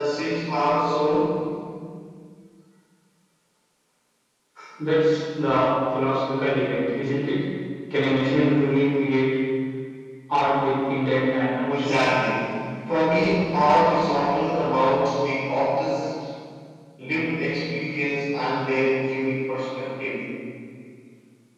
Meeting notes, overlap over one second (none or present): none